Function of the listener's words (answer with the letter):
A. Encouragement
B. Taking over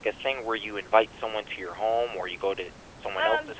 B